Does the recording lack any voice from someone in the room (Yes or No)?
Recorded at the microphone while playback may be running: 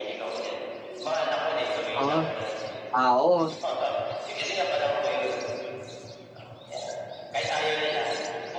No